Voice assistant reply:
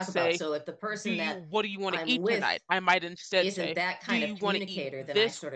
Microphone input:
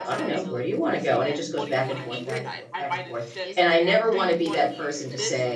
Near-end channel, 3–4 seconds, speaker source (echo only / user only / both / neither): both